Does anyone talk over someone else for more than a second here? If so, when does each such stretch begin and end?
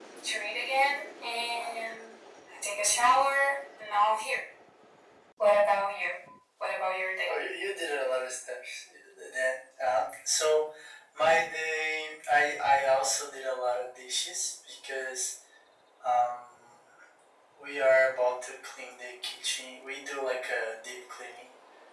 none

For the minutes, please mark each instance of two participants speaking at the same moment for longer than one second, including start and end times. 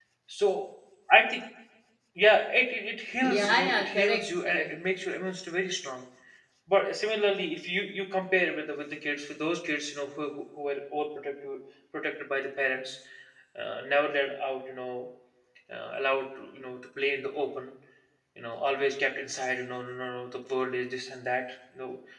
3.2-4.7

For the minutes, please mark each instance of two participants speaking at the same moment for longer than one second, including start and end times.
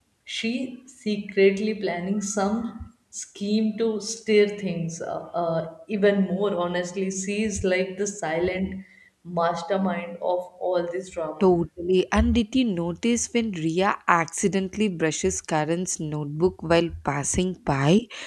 none

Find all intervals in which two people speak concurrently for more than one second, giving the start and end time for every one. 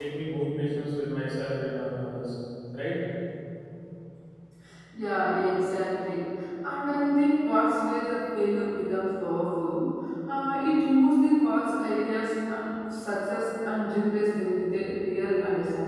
none

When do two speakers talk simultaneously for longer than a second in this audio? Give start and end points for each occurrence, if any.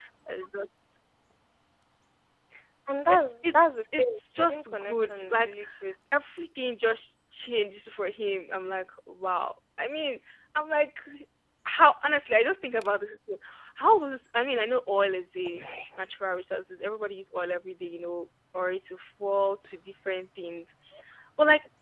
3.1-5.5

